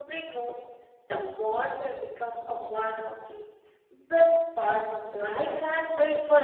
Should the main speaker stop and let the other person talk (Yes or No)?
Yes